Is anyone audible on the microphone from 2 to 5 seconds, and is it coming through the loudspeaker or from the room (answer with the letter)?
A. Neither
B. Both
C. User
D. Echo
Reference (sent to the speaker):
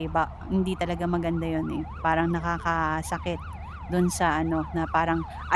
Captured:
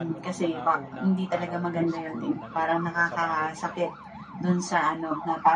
B